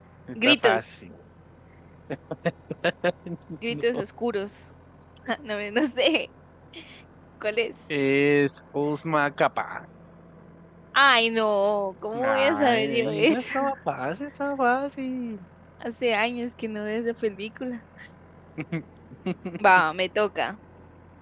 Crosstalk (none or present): present